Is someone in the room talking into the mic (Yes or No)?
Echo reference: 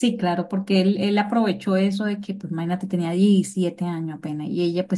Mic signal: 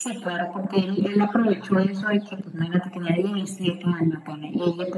No